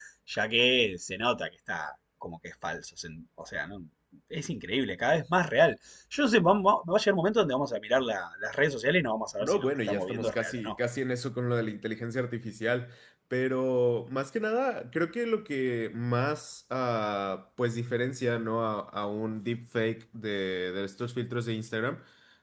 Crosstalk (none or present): present